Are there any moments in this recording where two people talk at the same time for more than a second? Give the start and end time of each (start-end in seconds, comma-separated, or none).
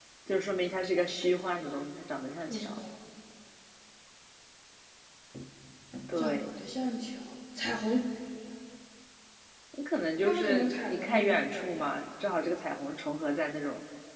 10.2-11.8